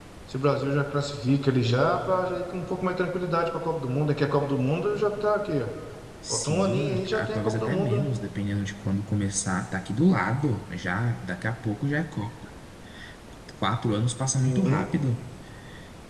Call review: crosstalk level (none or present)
present